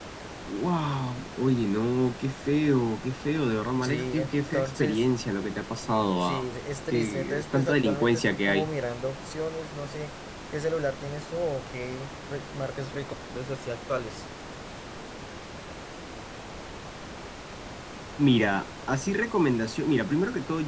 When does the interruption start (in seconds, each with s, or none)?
3.8 s